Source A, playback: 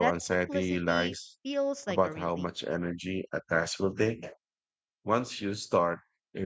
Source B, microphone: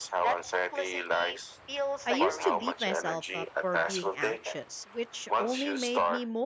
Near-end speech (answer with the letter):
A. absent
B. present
B